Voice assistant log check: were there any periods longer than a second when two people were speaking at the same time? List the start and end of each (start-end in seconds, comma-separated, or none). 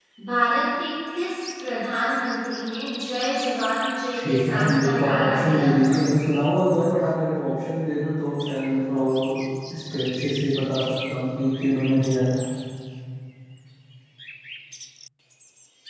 4.2-6.0